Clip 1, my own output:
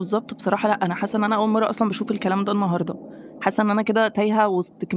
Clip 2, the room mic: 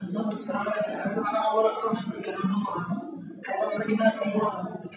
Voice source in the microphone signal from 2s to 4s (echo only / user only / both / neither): echo only